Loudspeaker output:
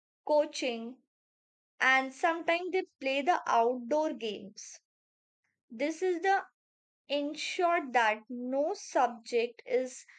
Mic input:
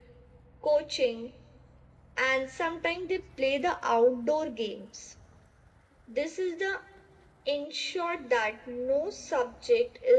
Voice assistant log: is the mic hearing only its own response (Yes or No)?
Yes